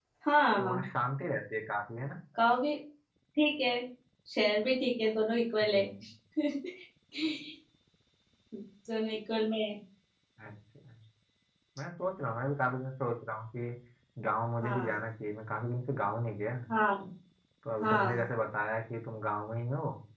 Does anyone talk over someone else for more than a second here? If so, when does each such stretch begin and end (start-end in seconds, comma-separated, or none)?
none